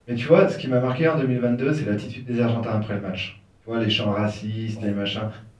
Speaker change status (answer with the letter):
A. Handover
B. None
B